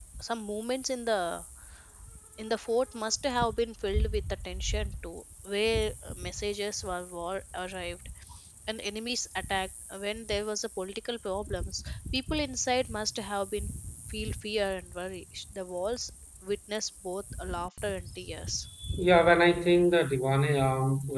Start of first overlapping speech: none

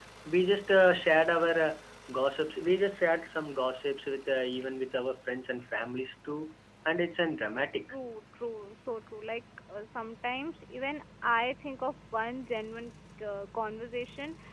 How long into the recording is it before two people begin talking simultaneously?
none

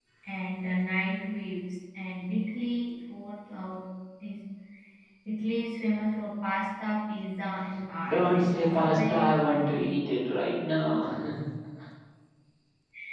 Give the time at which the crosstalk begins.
8.1 s

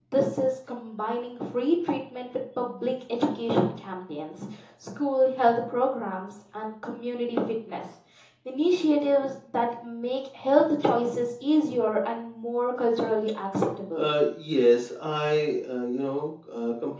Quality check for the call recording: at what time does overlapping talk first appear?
none

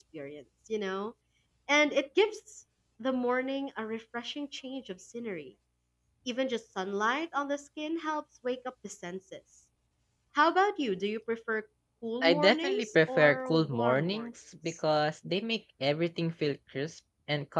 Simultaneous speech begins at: 12.2 s

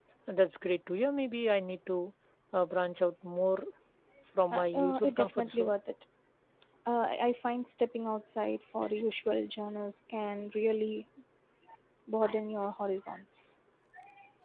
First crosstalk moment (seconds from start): 4.5 s

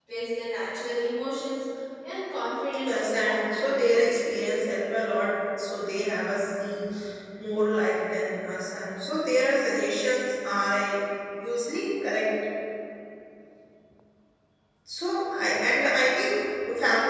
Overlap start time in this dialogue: 2.9 s

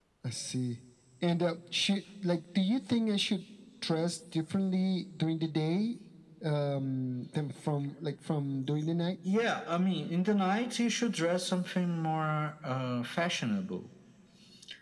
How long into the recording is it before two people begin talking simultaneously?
none

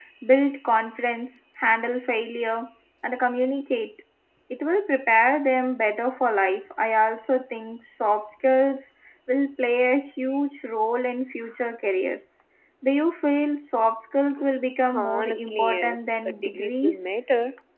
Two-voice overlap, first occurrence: 14.8 s

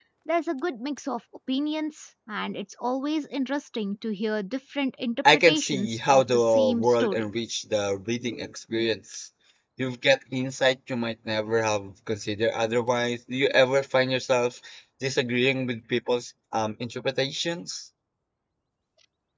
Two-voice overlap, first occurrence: 5.2 s

